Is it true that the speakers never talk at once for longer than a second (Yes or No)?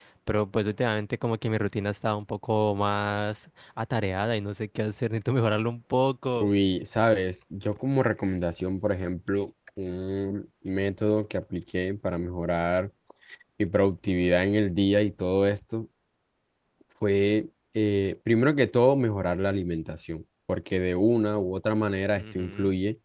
Yes